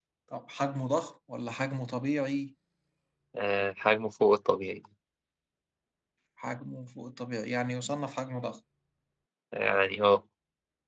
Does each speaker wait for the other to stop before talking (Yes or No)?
Yes